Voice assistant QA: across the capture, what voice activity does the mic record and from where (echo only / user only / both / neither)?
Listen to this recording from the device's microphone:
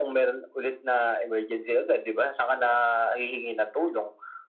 echo only